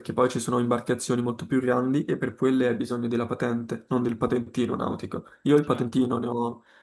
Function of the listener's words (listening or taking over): listening